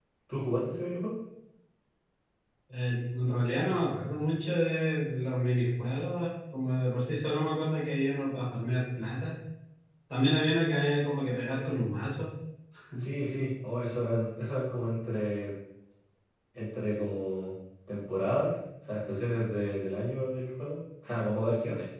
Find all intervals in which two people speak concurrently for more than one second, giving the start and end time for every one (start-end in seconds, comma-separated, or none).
none